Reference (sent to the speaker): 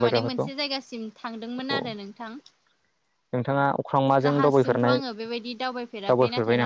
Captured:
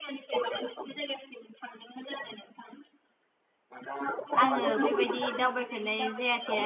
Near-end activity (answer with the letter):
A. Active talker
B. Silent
A